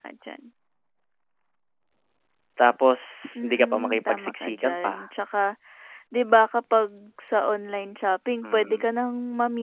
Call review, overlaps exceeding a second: present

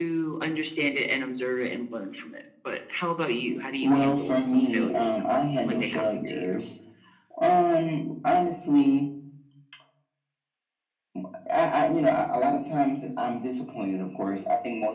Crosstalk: present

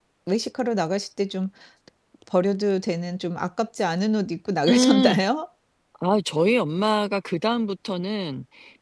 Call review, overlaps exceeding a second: none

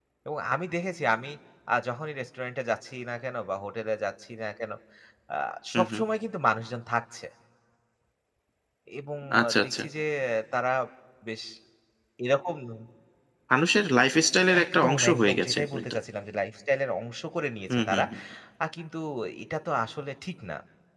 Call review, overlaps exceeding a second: present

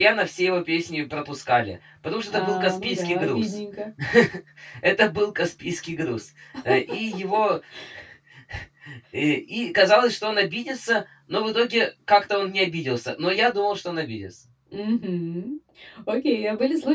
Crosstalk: present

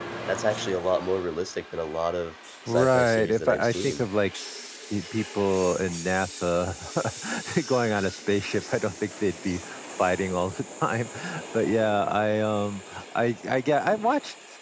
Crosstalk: present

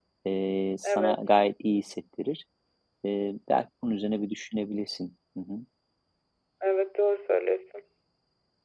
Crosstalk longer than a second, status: none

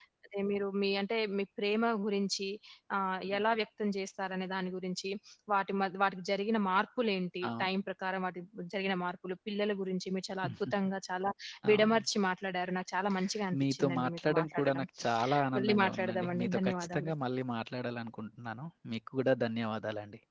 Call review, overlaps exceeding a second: present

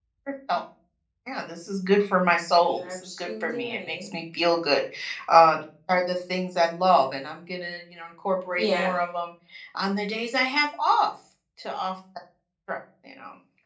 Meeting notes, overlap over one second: present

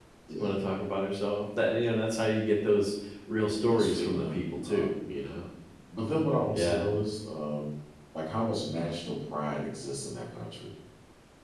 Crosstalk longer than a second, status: present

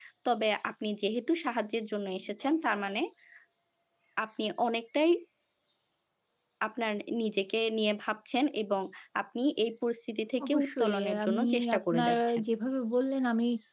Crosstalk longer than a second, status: present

